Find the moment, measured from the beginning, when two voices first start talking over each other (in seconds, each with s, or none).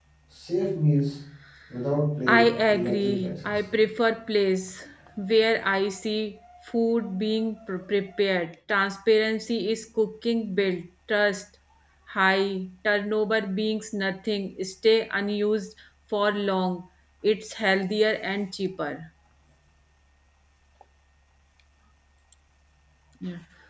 2.3 s